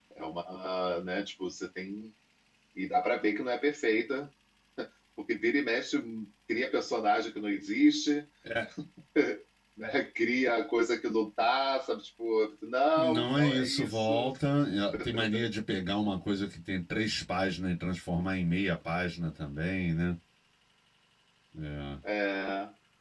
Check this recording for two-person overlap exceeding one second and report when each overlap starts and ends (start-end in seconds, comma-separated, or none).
13.0-14.3